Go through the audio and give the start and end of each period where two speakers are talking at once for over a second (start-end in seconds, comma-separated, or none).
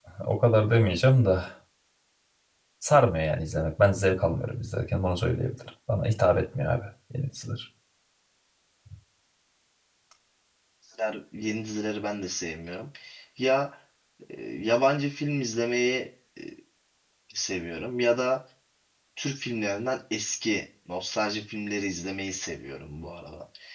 none